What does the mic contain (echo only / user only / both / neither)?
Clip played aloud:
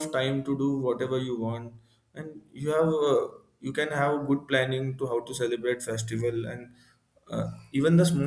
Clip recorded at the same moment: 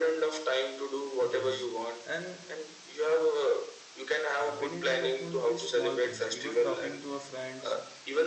both